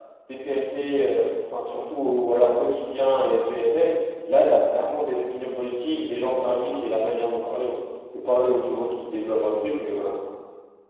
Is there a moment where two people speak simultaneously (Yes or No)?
No